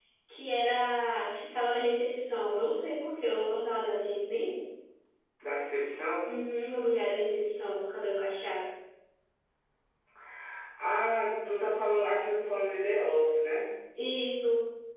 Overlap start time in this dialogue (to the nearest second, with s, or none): none